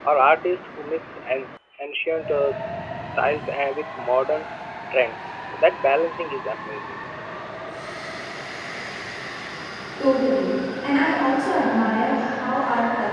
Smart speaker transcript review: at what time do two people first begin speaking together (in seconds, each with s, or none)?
none